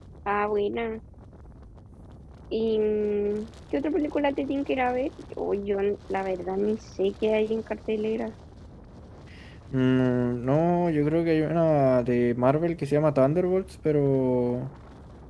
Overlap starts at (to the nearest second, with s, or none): none